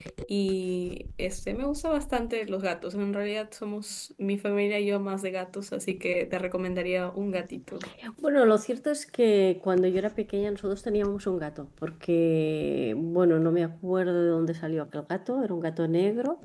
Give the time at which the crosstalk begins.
none

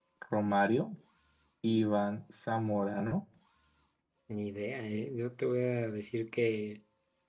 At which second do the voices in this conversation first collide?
none

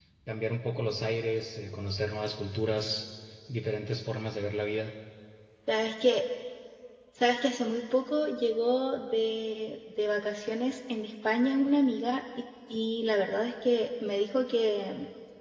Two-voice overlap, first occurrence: none

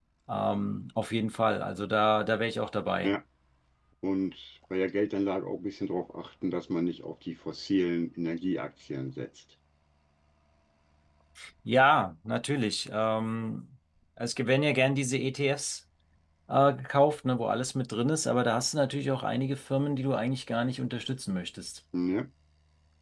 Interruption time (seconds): none

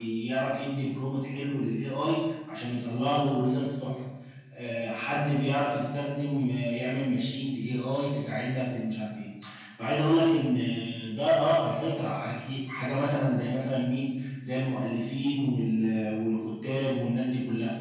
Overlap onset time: none

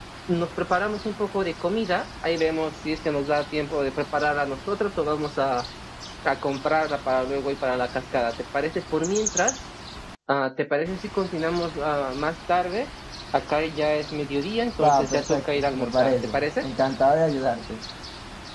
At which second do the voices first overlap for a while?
14.8 s

